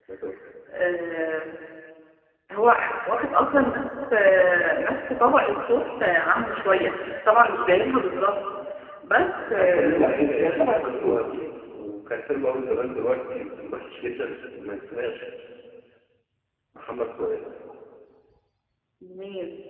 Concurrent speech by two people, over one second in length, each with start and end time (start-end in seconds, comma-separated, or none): 9.6-11.2